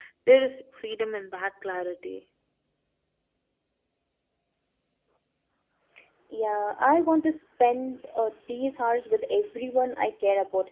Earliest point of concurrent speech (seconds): none

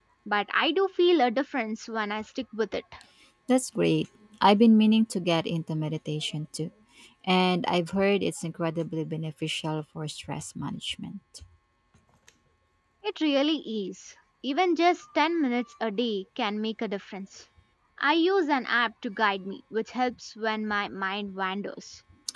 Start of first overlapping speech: none

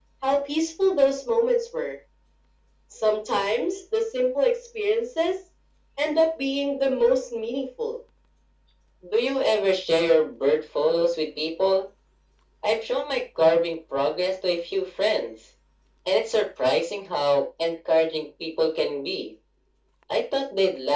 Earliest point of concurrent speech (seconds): none

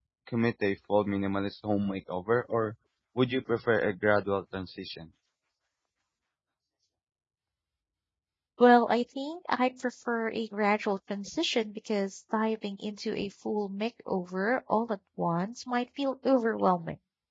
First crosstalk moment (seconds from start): none

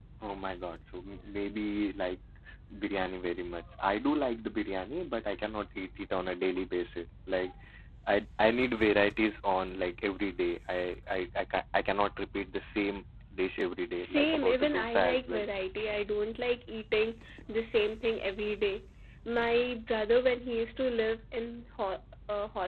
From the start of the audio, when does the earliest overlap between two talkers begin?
14 s

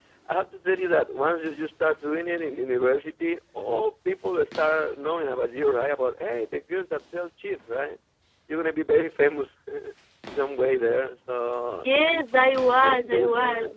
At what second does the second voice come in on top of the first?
12 s

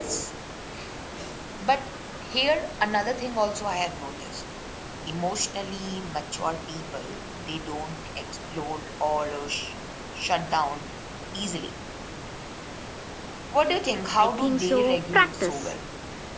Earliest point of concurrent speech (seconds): 14 s

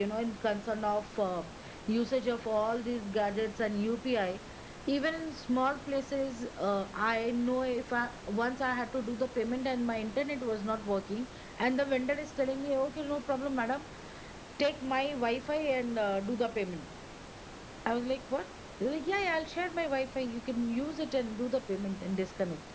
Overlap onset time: none

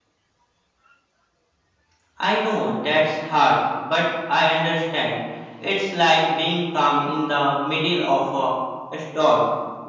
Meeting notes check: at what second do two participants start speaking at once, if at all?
none

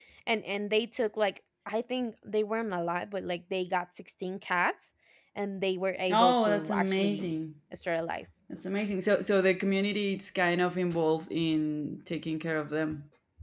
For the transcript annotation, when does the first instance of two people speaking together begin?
6 s

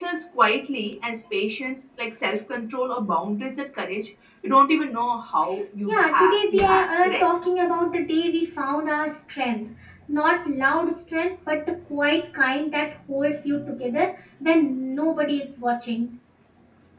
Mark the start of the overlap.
6 s

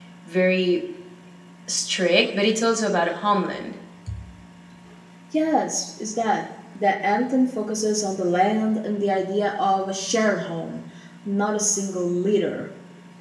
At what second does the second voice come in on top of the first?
none

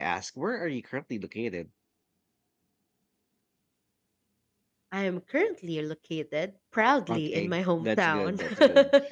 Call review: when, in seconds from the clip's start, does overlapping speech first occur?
7 s

